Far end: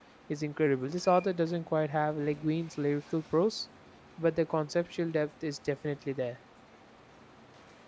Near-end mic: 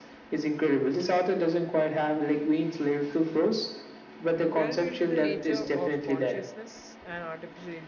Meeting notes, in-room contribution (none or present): present